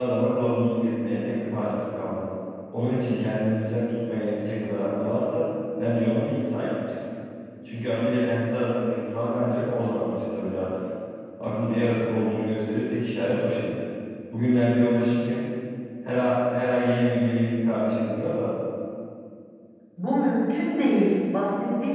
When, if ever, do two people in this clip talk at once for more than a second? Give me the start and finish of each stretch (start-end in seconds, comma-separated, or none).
none